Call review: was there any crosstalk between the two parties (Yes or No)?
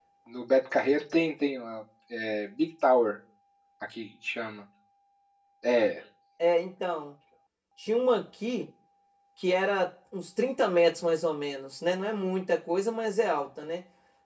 No